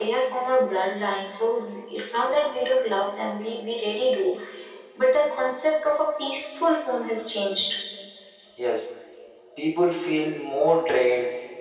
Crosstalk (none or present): none